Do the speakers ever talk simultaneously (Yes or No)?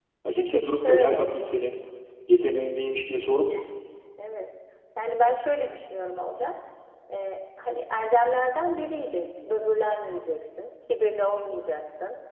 Yes